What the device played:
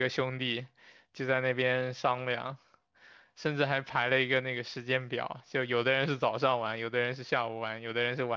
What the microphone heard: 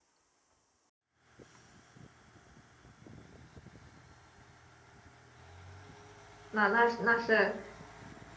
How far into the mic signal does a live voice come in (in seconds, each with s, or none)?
6.5 s